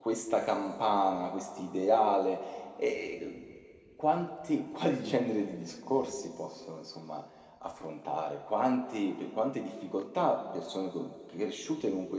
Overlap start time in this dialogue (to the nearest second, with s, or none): none